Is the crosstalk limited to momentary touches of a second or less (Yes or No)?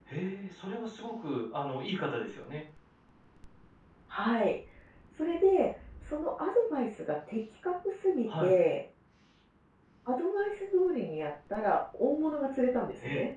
Yes